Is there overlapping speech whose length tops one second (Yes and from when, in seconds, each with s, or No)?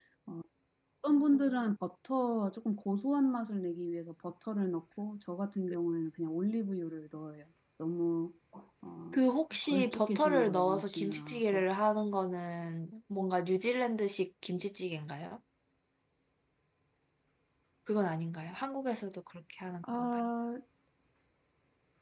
Yes, from 9.6 s